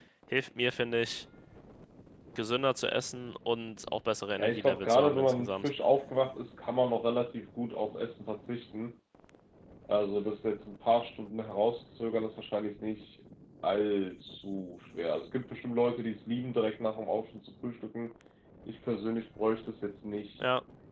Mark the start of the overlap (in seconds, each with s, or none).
4.4 s